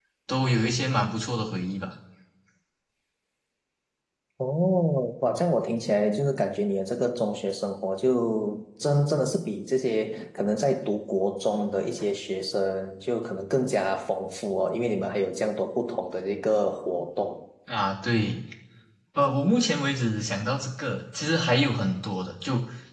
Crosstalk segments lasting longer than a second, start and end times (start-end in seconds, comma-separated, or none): none